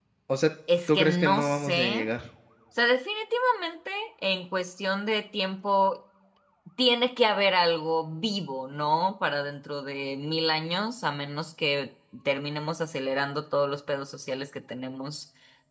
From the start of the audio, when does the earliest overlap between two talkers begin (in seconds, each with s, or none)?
0.9 s